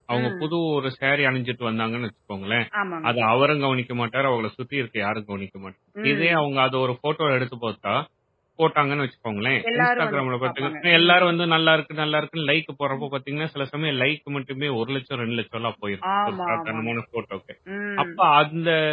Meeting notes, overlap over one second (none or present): present